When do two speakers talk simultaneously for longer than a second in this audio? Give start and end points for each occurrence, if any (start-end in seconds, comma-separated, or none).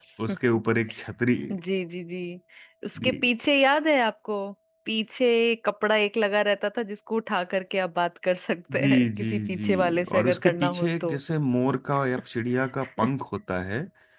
8.8-11.2